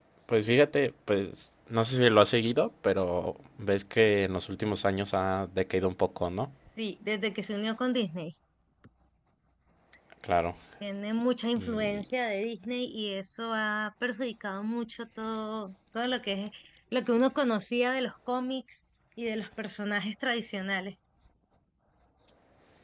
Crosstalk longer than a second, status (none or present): none